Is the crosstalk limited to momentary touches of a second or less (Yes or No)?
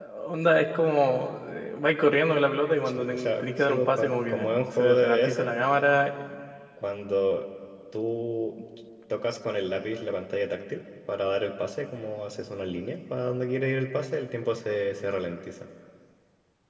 No